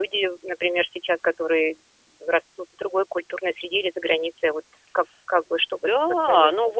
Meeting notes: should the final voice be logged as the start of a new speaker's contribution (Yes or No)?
Yes